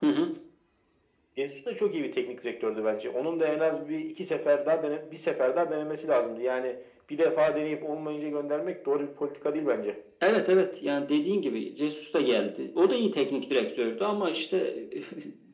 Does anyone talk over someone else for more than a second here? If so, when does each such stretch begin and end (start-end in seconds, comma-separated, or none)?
none